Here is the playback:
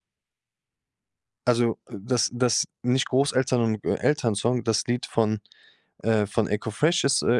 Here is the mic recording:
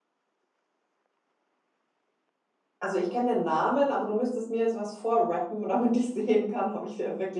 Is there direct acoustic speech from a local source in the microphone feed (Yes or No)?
Yes